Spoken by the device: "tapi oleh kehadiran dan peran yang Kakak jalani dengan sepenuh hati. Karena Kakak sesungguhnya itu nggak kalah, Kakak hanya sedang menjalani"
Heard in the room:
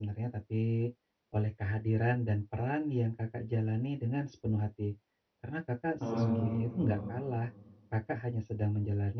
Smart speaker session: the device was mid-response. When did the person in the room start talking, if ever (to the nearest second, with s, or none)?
6 s